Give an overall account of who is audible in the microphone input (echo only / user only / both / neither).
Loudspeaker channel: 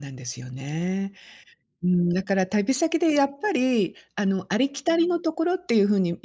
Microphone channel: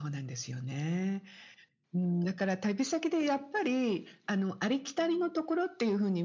echo only